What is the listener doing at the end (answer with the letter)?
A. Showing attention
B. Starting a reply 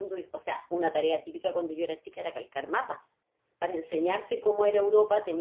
A